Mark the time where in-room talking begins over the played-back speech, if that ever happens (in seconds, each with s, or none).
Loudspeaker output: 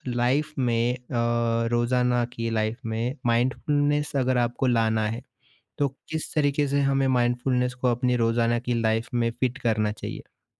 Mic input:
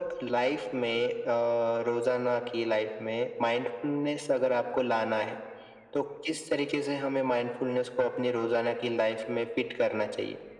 none